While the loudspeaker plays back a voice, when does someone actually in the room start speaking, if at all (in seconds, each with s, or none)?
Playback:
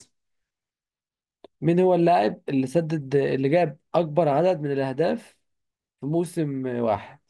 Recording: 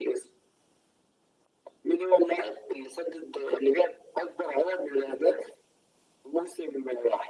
none